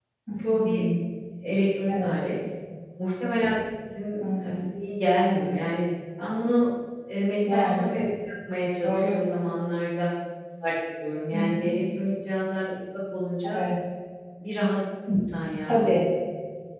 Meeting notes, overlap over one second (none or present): none